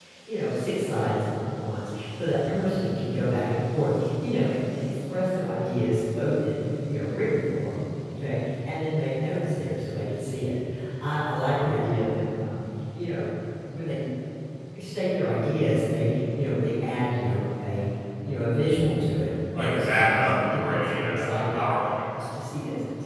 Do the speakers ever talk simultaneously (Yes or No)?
Yes